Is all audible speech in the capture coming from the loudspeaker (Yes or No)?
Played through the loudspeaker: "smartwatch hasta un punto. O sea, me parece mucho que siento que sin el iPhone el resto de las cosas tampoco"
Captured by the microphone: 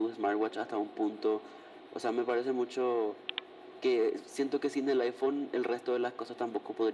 Yes